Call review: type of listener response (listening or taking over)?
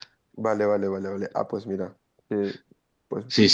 taking over